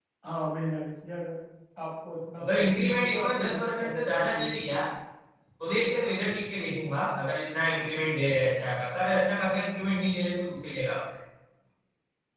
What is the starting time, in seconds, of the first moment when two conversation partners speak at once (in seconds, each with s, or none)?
2.4 s